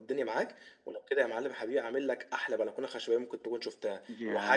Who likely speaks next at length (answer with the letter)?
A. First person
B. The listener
B